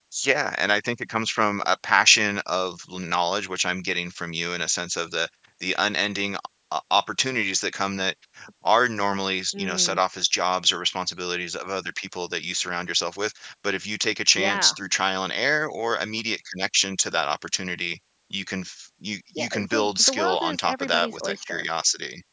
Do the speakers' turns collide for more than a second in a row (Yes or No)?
Yes